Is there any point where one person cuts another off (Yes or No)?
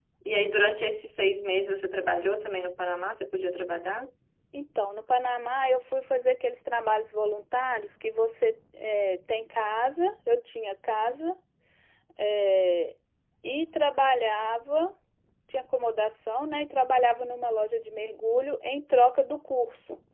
No